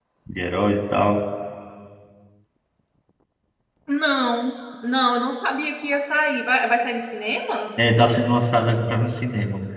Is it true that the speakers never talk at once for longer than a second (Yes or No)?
Yes